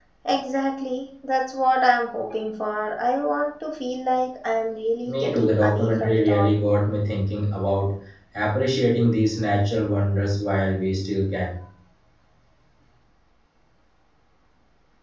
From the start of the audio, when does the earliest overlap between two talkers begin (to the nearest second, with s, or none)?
5 s